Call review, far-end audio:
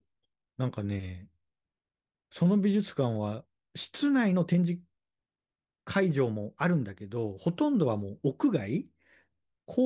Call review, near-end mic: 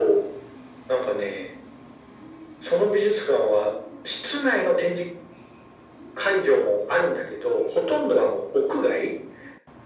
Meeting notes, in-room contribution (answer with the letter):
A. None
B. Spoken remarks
A